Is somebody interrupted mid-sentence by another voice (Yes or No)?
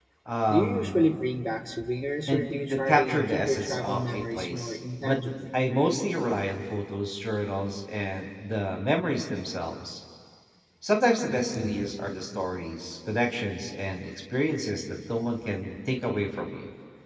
Yes